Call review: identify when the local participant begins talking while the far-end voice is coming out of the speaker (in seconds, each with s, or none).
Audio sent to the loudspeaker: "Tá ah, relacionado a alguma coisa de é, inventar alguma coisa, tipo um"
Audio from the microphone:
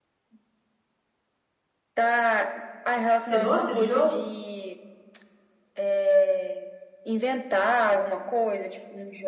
3.2 s